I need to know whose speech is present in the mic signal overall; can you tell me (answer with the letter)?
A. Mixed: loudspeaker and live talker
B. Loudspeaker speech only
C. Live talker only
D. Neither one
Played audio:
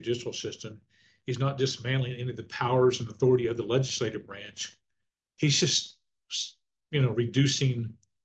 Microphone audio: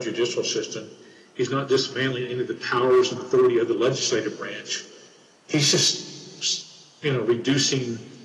B